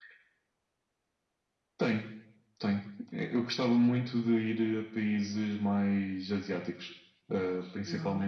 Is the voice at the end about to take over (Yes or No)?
No